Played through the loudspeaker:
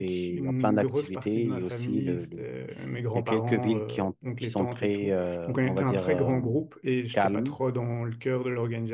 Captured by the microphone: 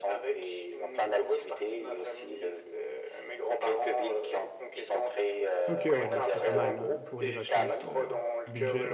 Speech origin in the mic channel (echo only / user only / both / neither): both